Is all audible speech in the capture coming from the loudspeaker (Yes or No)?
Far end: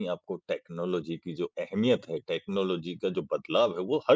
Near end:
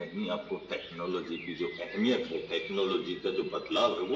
Yes